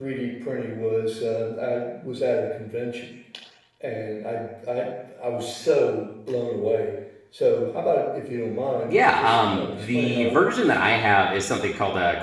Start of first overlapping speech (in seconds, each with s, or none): 8.9 s